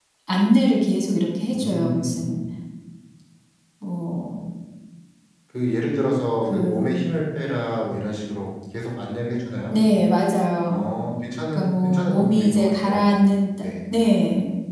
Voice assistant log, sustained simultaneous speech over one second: present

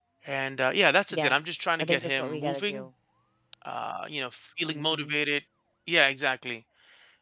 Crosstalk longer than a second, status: present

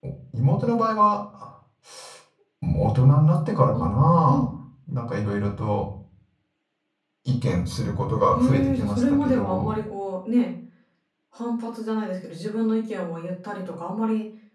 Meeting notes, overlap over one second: present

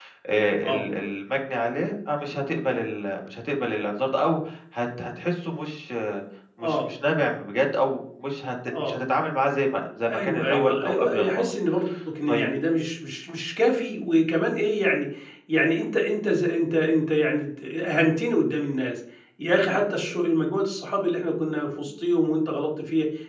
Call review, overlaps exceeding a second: present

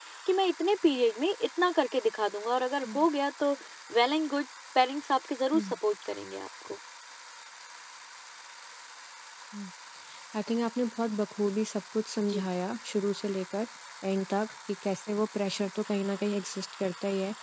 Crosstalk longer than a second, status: none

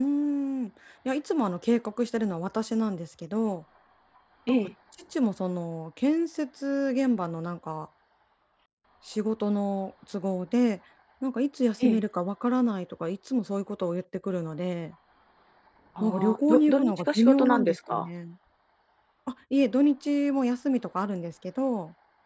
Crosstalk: present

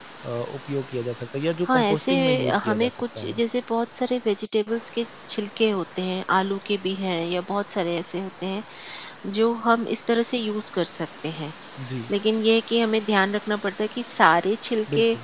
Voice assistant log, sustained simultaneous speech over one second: present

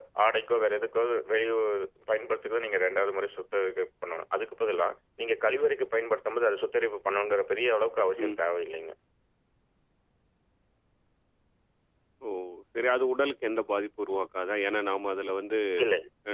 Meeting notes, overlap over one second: none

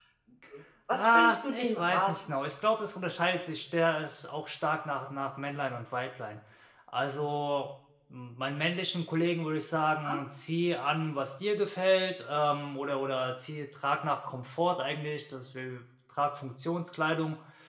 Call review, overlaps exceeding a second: present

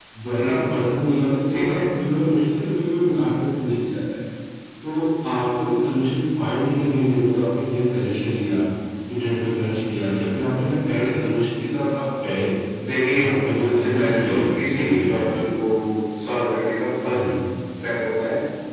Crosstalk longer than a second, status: present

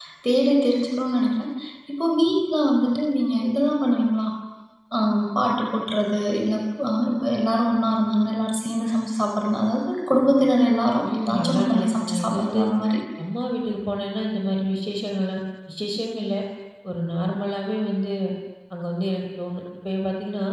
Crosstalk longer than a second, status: present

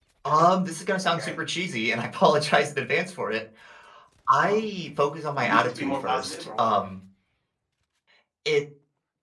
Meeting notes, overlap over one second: present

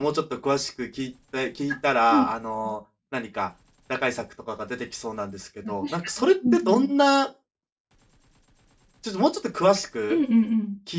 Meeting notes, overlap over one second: present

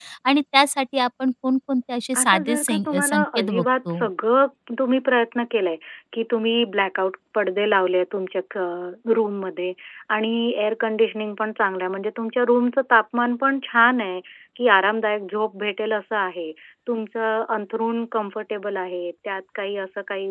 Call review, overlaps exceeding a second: present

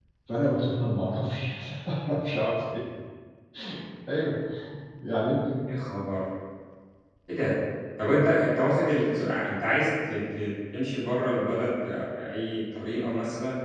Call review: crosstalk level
none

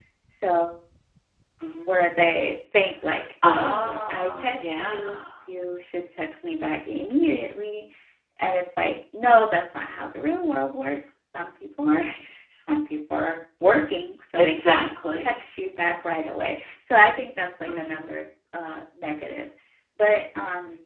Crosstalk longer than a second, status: present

